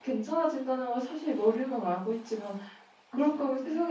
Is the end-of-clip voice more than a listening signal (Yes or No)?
No